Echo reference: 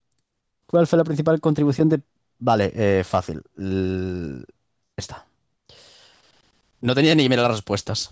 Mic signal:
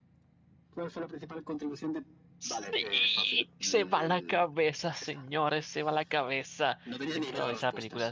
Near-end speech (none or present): present